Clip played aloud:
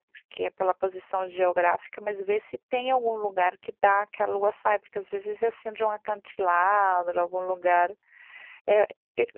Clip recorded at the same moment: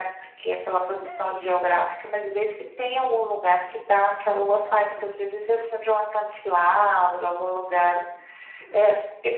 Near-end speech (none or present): present